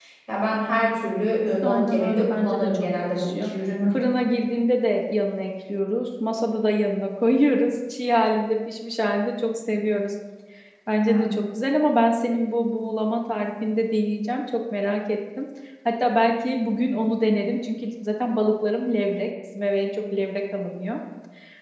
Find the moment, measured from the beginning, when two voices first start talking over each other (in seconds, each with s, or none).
1.6 s